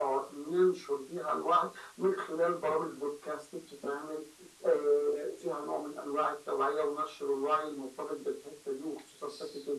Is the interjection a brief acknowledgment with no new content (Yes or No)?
No